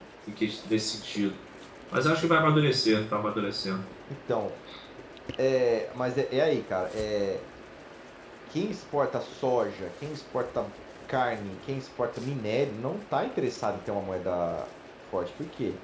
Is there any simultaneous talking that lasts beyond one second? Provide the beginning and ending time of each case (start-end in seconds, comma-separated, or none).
none